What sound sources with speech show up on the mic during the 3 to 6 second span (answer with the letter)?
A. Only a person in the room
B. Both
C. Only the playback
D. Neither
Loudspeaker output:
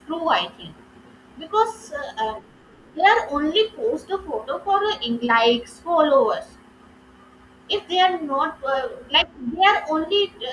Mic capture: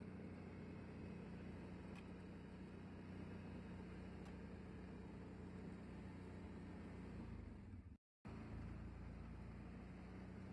D